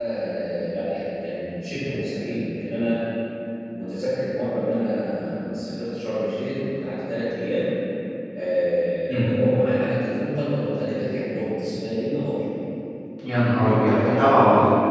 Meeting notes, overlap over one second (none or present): present